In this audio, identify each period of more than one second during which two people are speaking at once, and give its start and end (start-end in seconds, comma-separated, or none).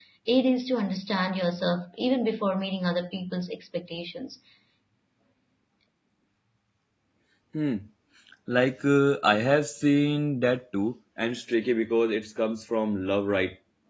none